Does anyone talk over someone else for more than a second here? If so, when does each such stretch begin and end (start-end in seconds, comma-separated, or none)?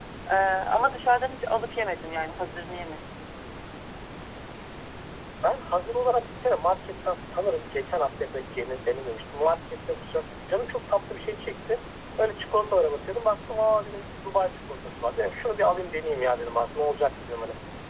none